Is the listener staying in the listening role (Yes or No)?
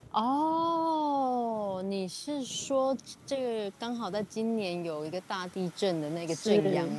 No